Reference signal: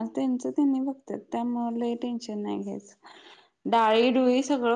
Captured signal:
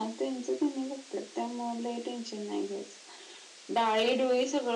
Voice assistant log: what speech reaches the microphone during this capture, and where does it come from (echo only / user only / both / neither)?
echo only